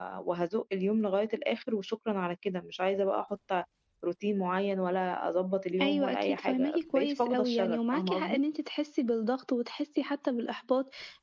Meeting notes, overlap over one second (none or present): present